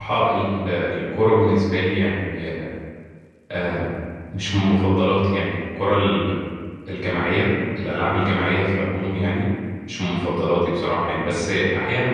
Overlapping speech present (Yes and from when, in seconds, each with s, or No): No